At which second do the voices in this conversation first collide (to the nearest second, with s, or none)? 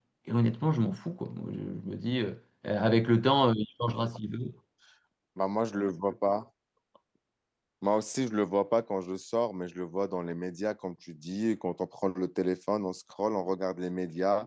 none